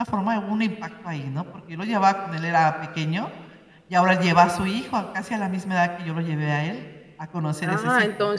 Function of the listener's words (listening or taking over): taking over